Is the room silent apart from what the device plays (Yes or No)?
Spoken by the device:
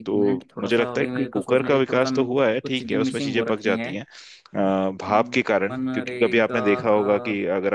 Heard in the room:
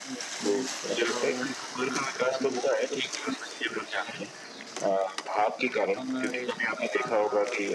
Yes